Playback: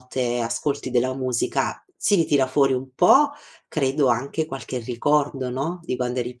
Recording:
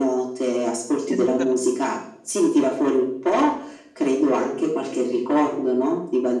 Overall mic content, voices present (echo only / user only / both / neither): both